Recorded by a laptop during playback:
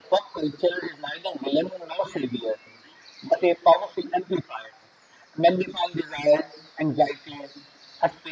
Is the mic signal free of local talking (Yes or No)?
Yes